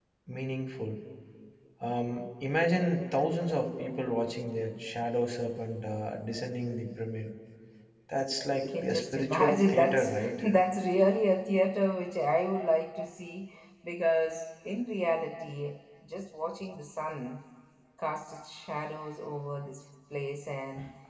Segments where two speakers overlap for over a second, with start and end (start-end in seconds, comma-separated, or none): 8.6-10.4